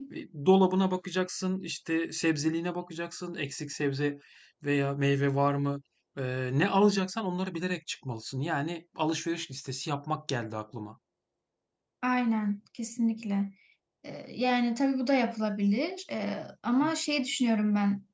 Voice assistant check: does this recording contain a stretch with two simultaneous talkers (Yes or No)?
No